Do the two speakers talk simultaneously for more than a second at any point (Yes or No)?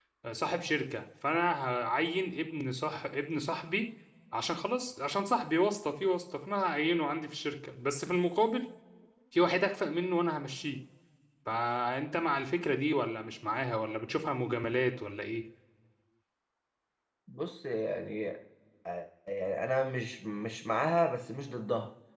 No